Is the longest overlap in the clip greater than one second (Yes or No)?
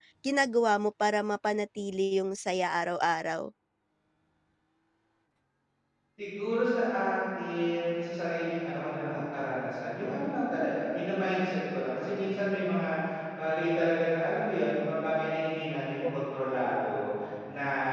No